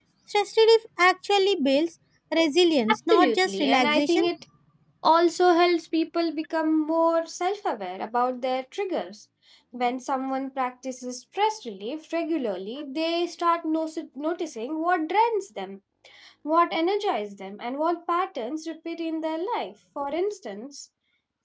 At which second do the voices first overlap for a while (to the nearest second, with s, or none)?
3 s